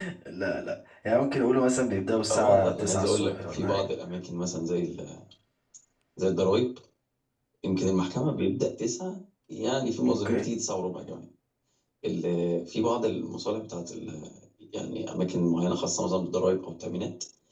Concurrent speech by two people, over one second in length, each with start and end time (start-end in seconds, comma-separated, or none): 2.3-3.8